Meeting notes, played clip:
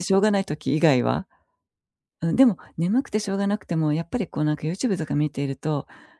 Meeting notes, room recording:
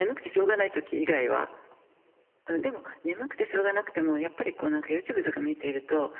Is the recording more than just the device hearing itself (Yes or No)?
No